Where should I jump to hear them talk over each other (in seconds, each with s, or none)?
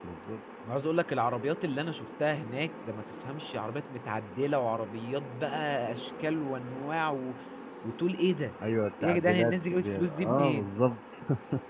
9.0 s